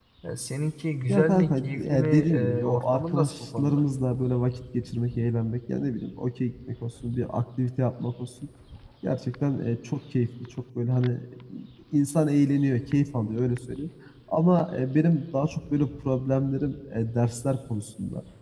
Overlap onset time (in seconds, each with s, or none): 1.1 s